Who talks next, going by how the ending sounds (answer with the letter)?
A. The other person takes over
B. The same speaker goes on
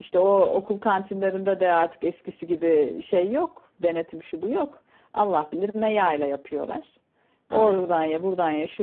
B